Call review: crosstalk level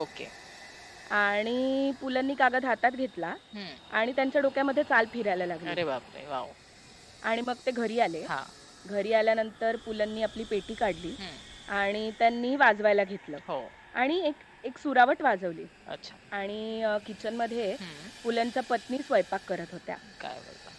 none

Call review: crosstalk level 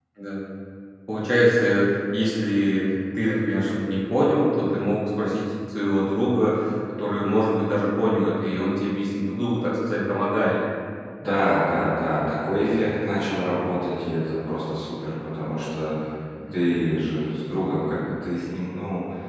none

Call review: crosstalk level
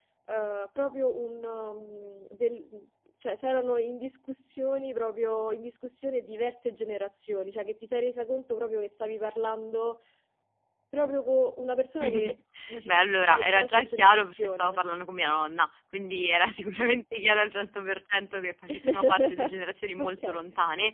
present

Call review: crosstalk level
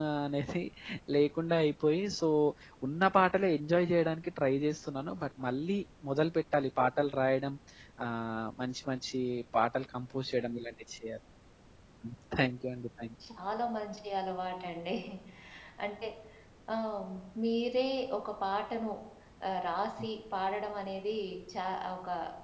none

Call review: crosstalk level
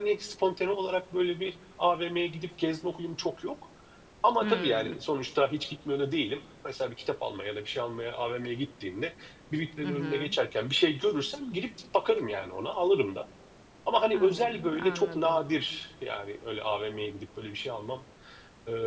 present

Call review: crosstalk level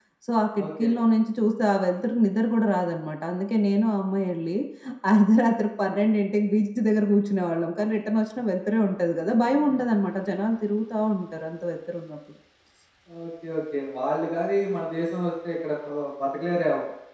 none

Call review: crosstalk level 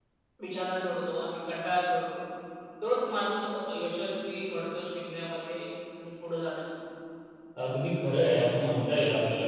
none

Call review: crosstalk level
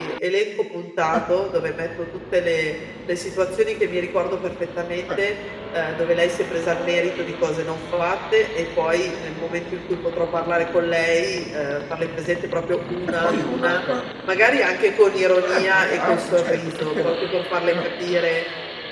present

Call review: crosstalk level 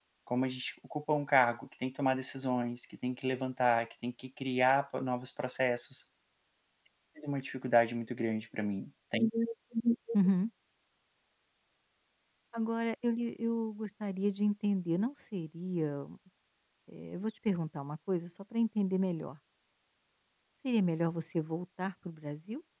none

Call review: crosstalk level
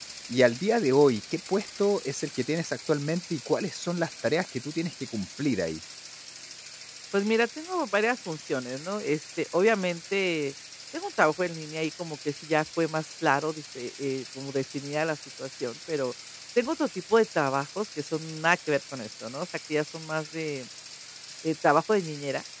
none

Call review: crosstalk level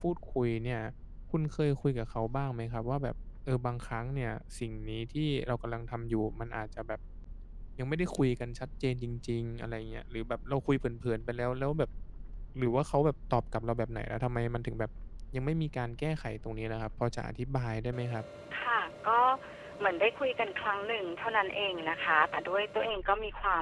none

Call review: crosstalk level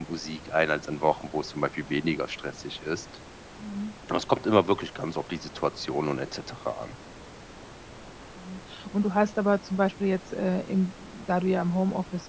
none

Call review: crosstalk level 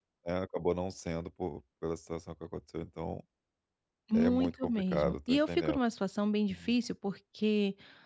present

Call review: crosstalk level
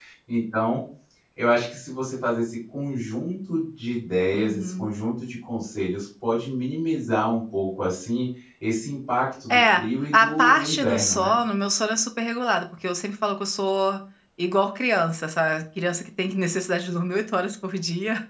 present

